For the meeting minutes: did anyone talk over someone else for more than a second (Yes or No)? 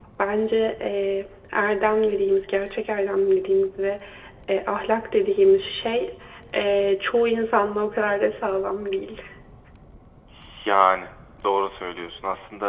No